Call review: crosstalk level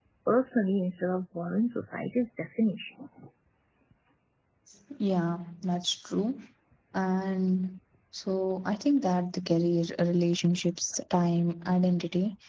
none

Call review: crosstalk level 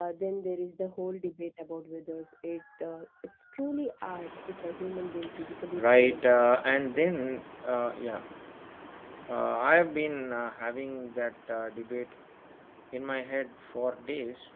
present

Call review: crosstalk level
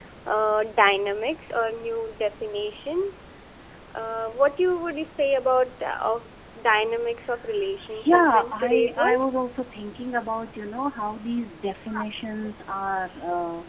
present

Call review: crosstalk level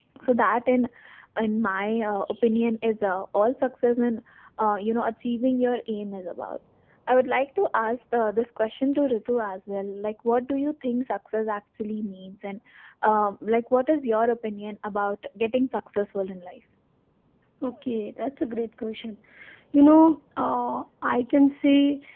none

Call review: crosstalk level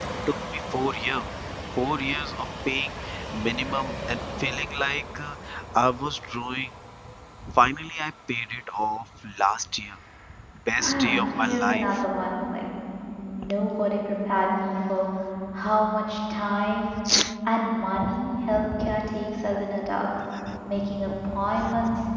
present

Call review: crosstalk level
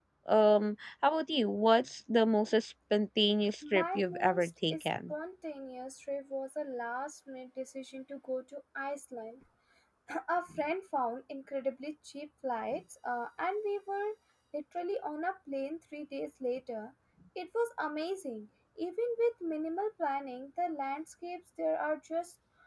present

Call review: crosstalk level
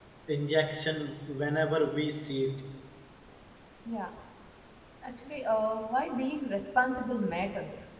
none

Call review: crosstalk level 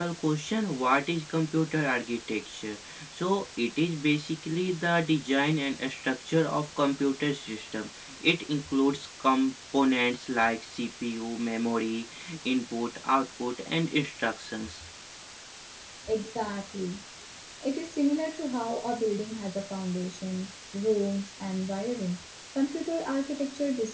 none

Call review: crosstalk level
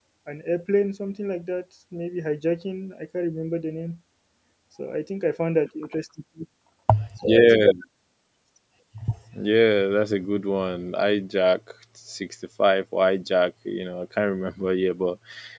none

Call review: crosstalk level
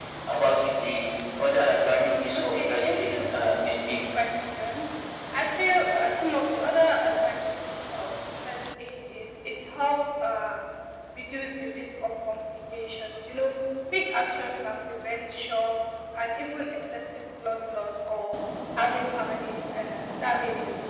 present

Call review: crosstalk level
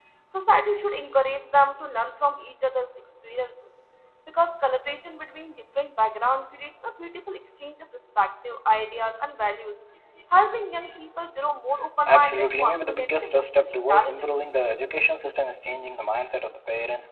present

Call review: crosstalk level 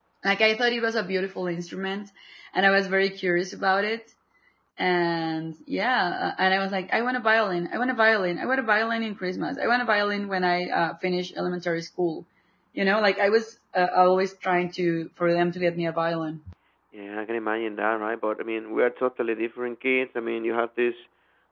none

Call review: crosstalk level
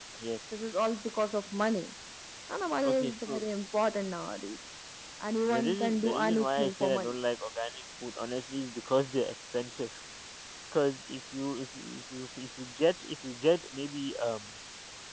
present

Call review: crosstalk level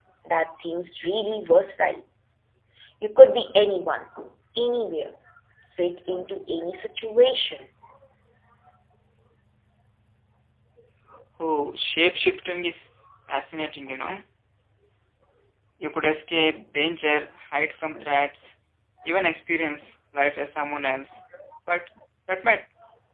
none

